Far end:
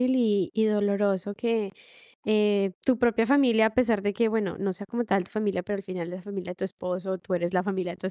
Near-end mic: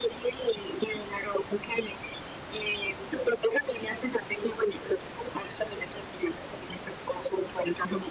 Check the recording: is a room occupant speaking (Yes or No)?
No